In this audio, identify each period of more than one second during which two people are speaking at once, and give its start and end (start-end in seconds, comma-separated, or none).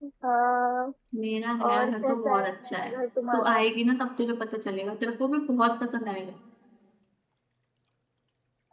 1.7-2.9